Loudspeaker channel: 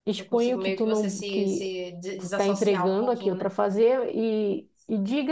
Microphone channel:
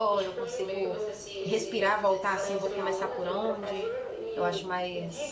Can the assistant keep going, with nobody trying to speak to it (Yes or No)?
No